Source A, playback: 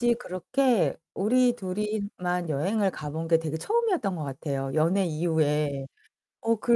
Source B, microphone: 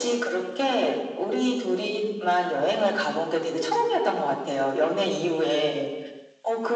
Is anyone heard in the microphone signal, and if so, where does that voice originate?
echo only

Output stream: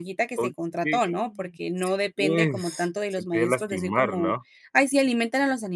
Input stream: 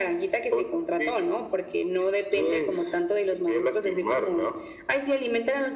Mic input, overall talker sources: echo only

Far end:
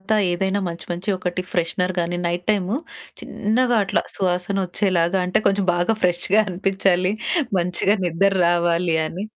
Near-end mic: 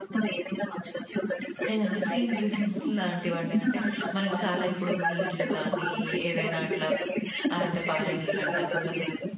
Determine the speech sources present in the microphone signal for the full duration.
both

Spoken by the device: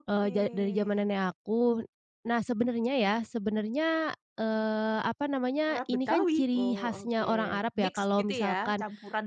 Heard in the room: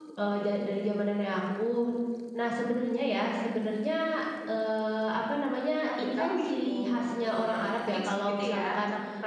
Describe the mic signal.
echo only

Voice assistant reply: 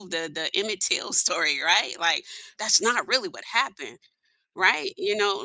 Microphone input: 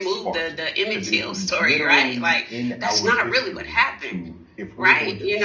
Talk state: both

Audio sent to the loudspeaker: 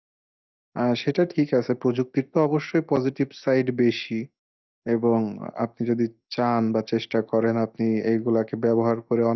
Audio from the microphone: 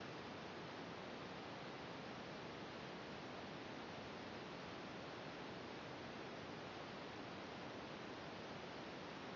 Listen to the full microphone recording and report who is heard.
neither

